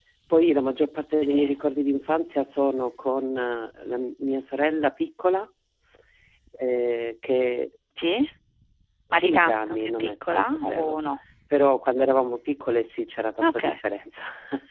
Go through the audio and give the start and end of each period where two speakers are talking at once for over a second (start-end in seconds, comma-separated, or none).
9.2-11.0